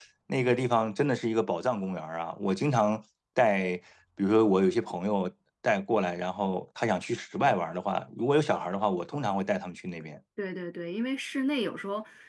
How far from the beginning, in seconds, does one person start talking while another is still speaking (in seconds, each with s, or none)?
none